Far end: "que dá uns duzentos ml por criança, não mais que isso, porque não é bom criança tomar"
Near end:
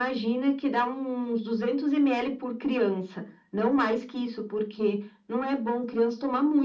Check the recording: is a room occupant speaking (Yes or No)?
No